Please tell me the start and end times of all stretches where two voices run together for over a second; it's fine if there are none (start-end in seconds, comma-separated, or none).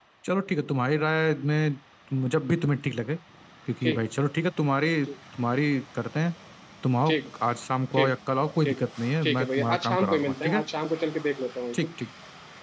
9.2-10.6